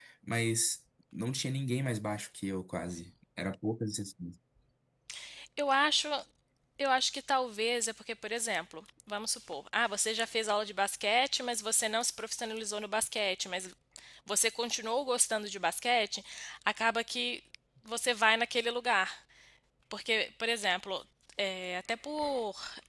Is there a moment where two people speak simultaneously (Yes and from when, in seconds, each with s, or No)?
No